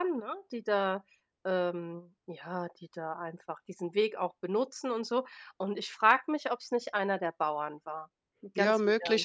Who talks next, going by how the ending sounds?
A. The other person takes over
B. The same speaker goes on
A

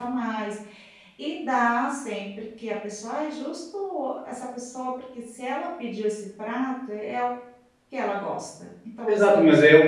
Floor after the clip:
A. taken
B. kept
A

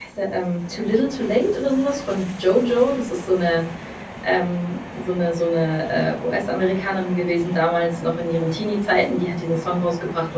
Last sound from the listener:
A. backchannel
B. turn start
A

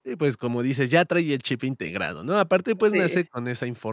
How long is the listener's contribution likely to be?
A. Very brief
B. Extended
A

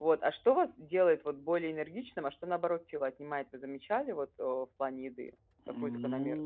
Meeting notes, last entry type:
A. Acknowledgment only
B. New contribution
B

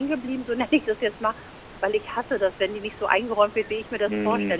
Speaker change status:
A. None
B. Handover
A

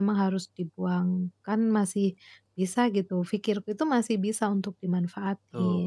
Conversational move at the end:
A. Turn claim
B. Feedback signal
A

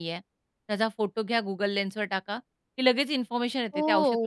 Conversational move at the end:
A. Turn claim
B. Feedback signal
A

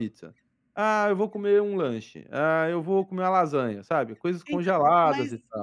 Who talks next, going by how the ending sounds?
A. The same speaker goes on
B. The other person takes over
B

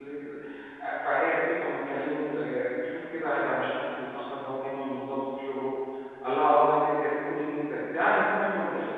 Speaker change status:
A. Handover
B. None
A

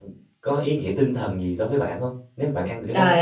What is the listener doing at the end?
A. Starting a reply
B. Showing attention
A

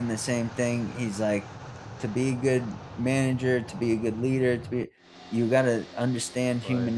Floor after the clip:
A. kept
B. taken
A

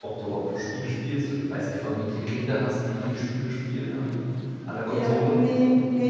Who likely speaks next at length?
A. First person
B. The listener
B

